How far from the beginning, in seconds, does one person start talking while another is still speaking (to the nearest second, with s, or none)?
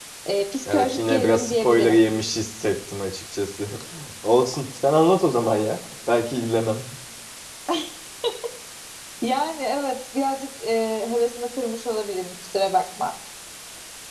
1 s